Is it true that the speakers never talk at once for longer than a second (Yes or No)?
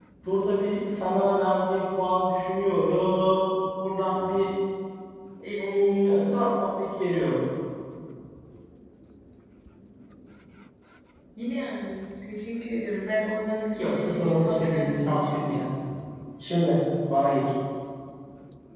No